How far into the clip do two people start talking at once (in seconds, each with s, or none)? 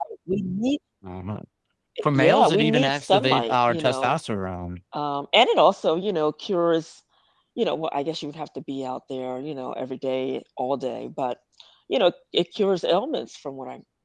2.1 s